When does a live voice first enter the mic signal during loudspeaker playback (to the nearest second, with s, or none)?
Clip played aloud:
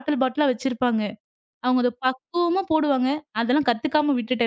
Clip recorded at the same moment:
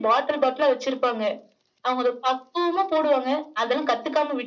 none